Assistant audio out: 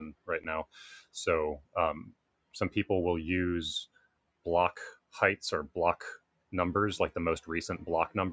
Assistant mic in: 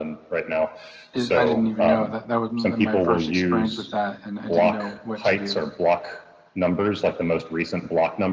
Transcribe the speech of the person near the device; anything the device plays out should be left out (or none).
it, I didn't even know that that was my first experience with that, and I didn't know what to do.